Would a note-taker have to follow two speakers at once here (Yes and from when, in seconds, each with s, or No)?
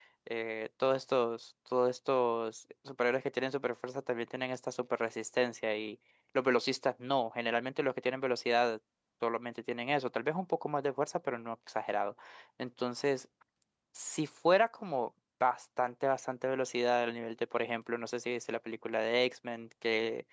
No